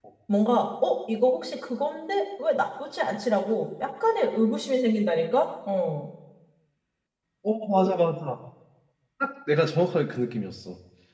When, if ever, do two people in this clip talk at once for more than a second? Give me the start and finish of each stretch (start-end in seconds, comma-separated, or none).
none